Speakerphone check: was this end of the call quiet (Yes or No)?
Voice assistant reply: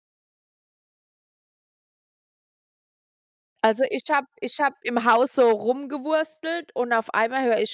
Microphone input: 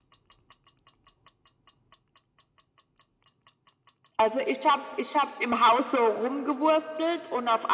Yes